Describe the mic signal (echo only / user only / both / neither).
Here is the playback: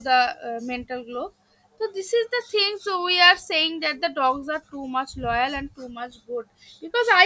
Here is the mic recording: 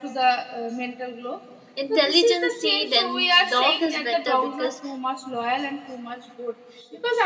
both